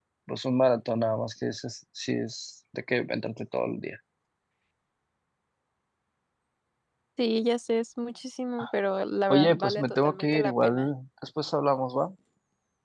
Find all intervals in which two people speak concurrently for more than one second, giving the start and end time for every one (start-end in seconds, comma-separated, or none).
9.3-10.9